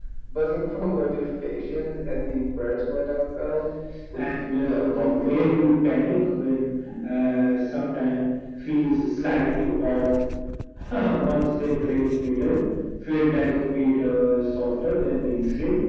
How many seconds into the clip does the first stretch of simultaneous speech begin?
4 s

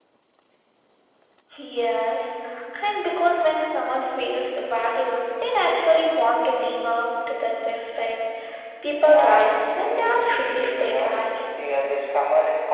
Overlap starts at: 9 s

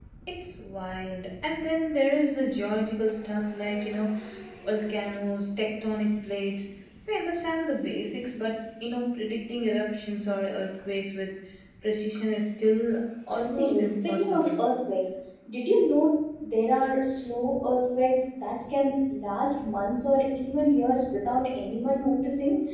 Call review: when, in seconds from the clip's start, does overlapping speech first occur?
13 s

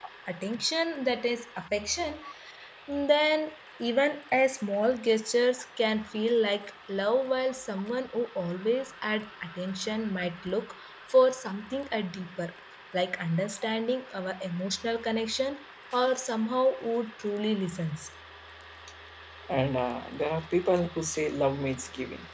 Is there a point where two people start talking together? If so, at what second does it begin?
none

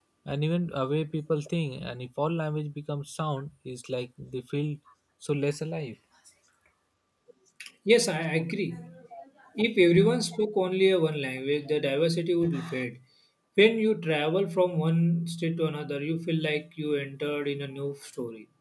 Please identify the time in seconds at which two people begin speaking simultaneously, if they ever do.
none

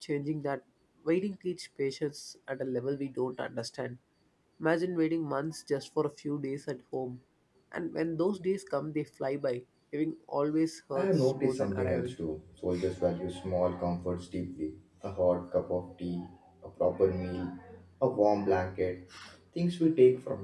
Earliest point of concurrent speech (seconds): 11 s

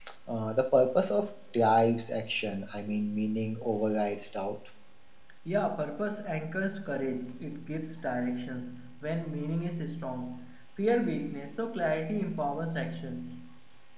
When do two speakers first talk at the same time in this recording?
none

